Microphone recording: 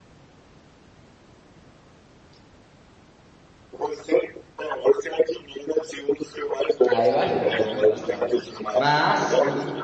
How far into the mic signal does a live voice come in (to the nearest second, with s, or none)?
7 s